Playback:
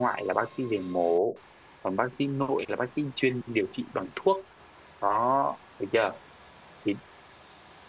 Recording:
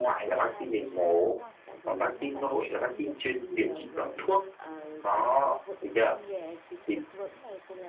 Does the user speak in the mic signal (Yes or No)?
Yes